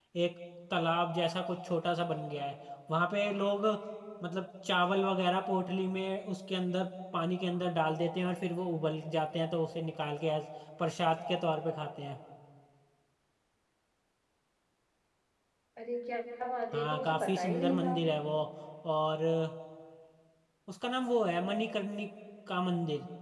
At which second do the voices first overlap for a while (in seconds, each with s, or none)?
16.7 s